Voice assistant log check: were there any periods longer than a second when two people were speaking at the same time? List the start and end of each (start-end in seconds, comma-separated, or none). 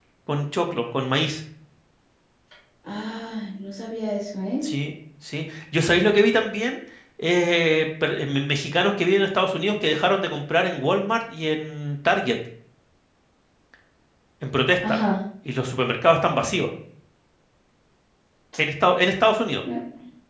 none